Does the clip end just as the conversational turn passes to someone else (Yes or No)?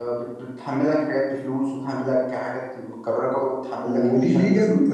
Yes